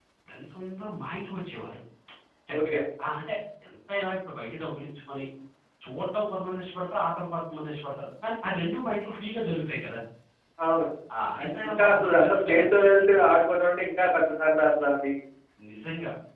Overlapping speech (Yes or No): Yes